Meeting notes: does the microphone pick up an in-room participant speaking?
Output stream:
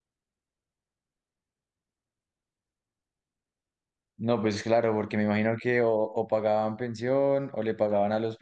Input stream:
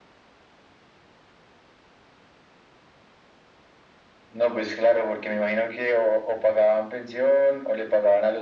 No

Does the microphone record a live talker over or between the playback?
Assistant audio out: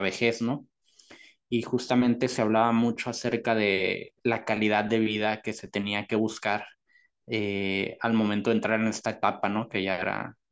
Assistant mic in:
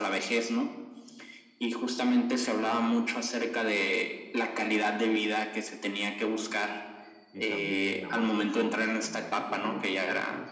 Yes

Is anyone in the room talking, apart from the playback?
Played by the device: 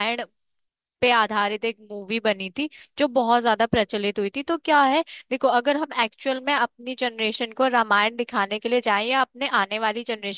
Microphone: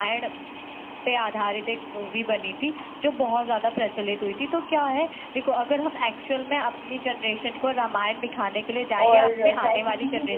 Yes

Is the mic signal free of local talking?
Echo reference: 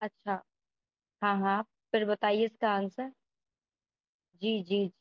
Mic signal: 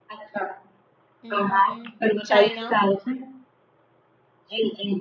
No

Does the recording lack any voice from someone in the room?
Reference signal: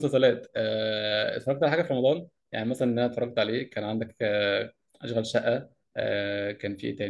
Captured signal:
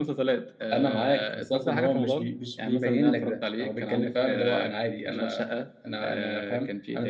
No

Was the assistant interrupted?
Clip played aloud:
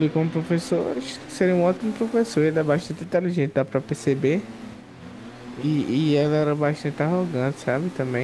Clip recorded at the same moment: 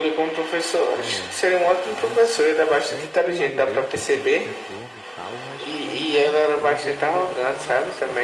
Yes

